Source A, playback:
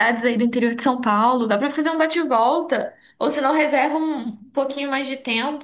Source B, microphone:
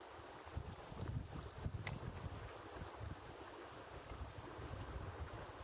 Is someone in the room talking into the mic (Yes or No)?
No